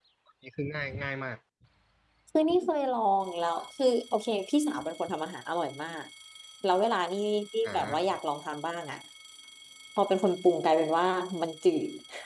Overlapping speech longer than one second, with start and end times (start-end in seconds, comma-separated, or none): none